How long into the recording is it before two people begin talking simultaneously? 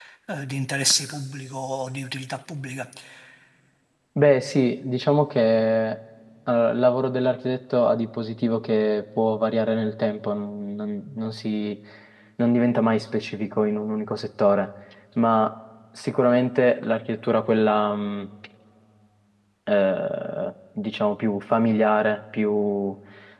none

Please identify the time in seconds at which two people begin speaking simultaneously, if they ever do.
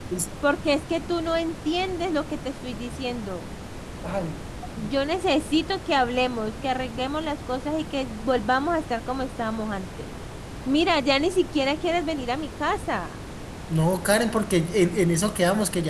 none

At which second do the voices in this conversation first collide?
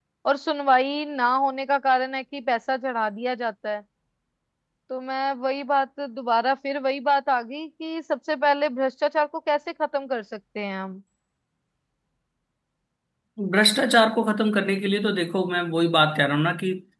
none

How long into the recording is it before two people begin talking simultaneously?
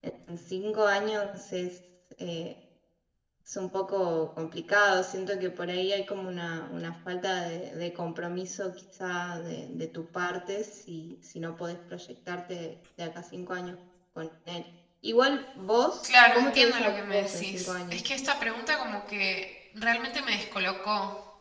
16 s

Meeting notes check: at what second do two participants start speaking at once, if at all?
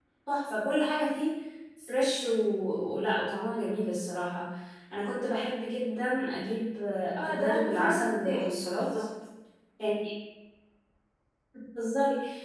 7 s

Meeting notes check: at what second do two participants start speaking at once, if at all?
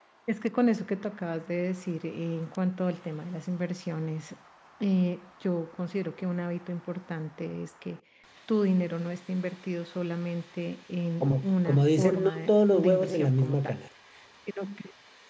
11 s

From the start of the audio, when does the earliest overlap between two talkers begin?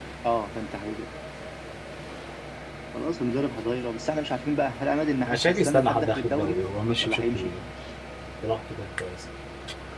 5 s

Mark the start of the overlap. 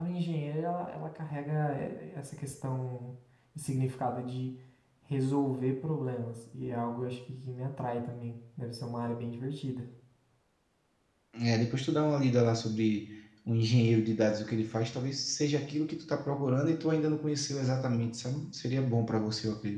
none

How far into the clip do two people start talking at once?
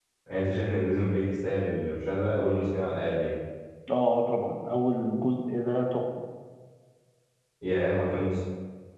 none

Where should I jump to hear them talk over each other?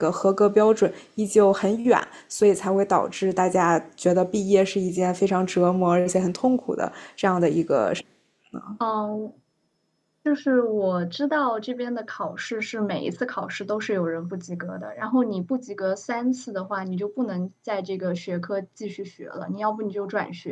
none

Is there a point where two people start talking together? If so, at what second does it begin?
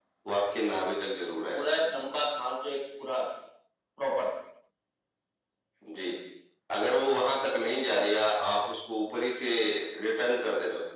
none

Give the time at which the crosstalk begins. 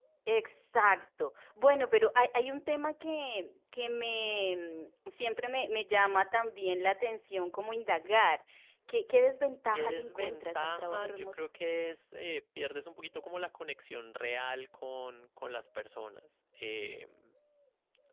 10 s

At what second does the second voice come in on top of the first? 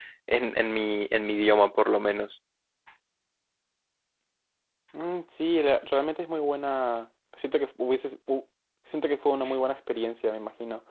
none

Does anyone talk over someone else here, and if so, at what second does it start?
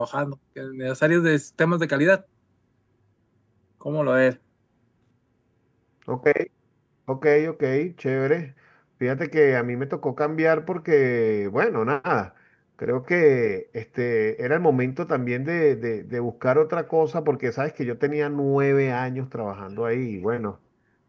none

